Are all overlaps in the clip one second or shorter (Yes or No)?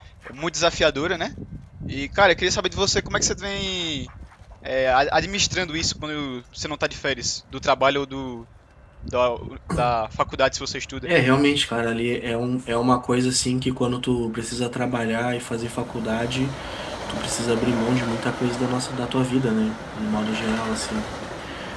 Yes